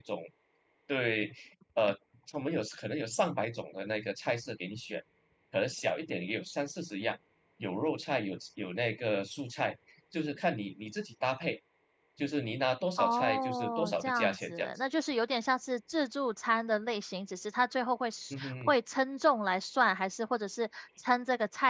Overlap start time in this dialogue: 13.0 s

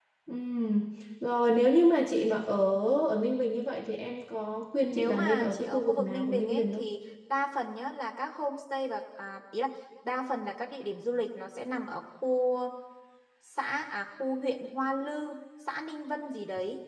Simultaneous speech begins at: 4.9 s

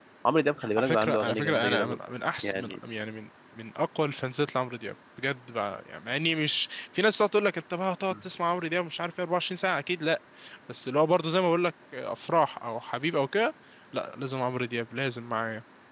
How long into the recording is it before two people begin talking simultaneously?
0.8 s

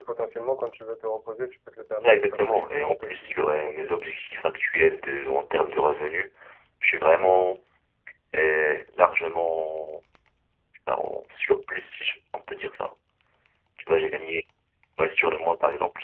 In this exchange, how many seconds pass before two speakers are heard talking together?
2.0 s

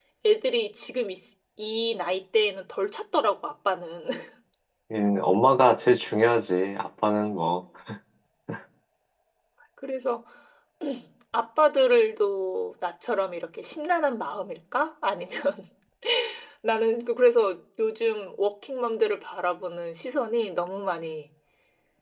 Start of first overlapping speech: none

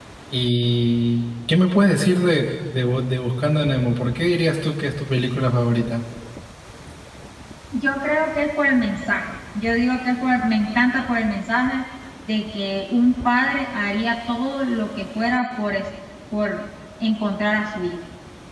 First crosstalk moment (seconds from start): none

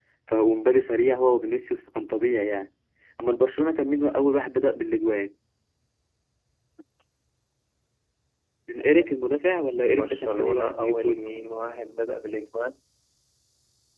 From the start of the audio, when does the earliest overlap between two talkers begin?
9.9 s

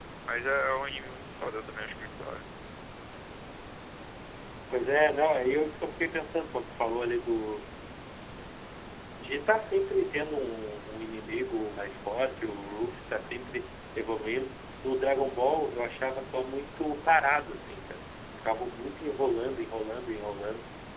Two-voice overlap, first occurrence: none

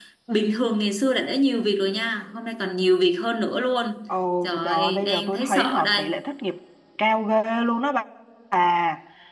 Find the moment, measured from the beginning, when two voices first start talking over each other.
4.4 s

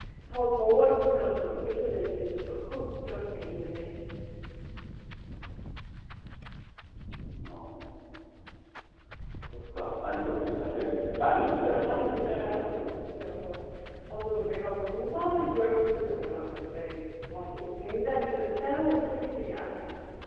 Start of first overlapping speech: 10.7 s

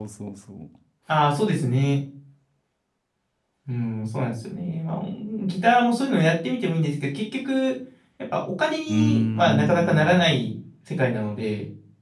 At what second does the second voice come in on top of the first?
8.9 s

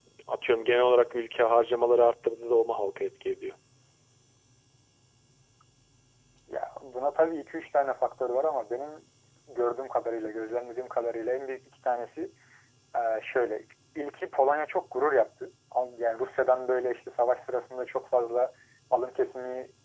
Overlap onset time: none

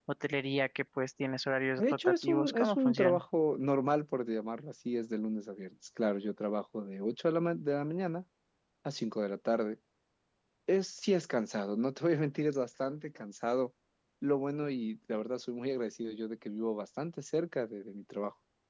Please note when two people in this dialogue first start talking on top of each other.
1.8 s

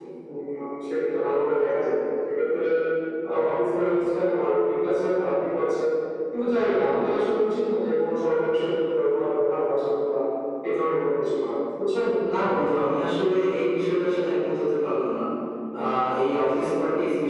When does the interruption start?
none

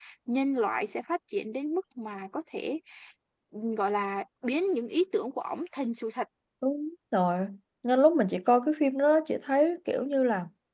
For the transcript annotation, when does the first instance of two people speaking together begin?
none

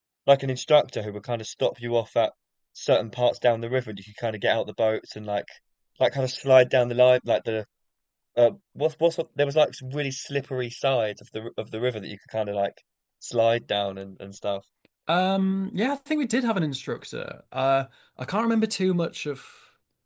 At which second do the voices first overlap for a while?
none

